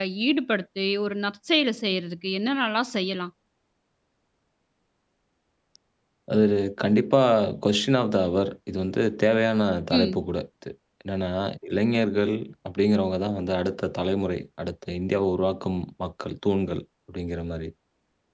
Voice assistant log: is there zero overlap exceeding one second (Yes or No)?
Yes